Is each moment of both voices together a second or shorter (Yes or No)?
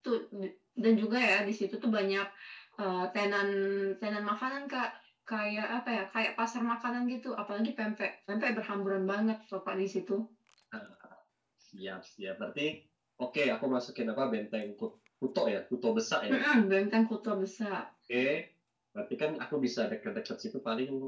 Yes